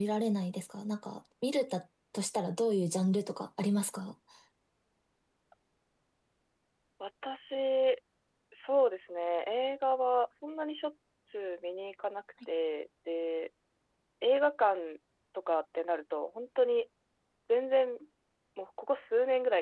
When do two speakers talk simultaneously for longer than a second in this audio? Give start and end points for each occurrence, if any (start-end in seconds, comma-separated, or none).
none